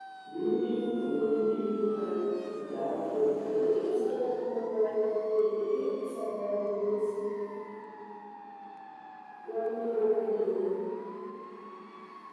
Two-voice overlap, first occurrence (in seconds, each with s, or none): 2.7 s